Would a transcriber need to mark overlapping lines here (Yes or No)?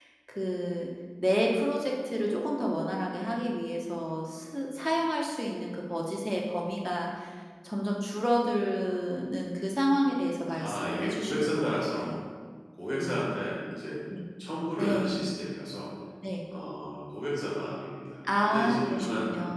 Yes